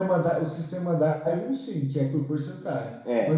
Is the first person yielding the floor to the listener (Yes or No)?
No